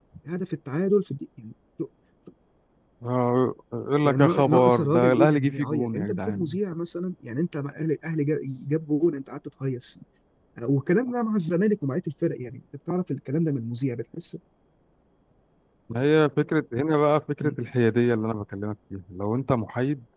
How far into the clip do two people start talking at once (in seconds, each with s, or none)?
4.0 s